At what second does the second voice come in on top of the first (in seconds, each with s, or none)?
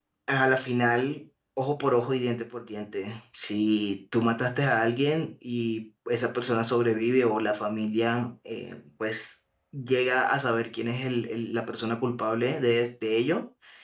none